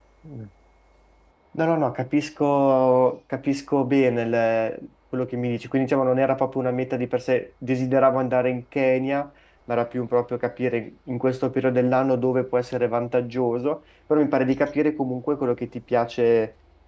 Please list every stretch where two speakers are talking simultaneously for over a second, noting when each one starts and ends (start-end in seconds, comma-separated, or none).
none